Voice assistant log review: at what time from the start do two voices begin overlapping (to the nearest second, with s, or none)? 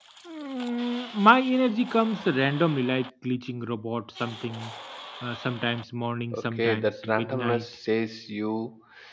6 s